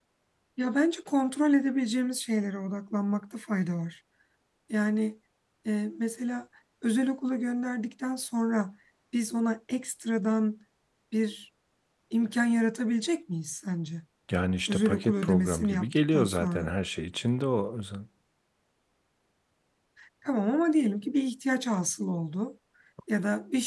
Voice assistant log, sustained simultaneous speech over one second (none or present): present